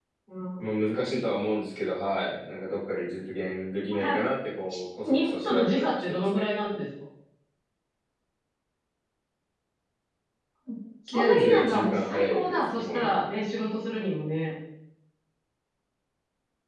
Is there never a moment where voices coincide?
No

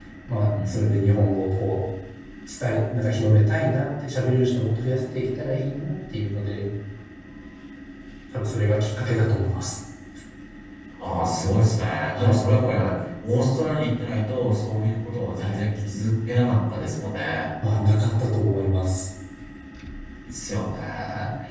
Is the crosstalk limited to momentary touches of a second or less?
Yes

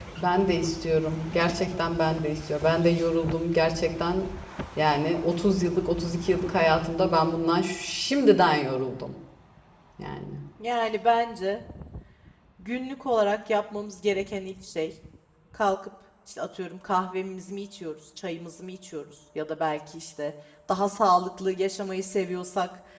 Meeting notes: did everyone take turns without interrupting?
Yes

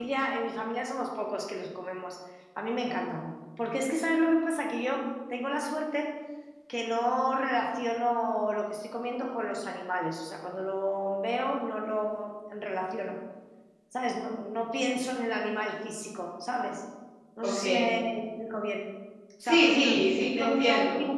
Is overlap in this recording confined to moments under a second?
No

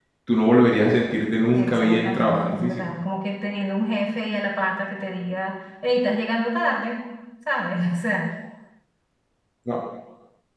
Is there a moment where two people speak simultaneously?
Yes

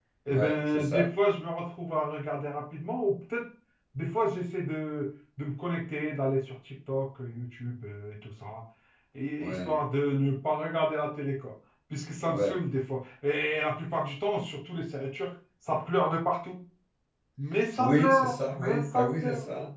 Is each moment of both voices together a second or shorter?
No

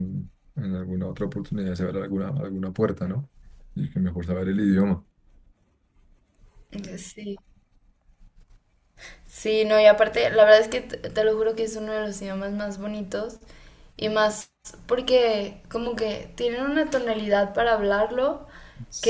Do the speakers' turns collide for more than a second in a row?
No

